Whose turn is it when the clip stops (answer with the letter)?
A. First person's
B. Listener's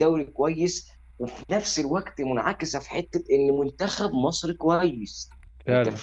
A